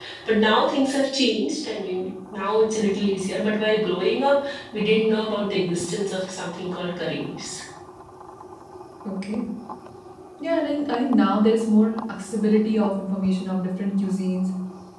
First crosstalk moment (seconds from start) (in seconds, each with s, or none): none